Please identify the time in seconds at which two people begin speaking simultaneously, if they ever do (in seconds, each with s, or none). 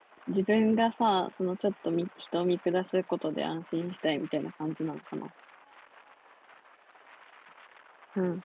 none